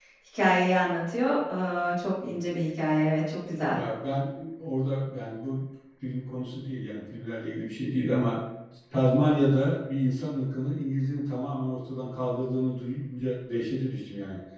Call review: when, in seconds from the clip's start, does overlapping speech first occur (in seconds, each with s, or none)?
none